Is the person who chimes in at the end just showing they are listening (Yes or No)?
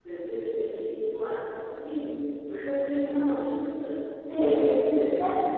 No